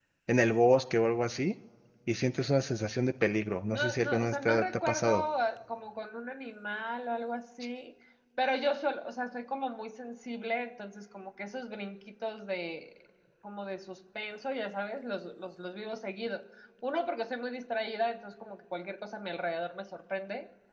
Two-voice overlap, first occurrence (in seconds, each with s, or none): 3.7 s